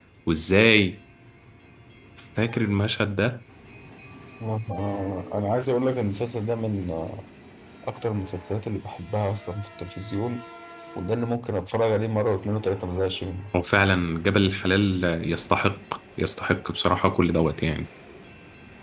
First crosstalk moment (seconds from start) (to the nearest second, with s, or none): none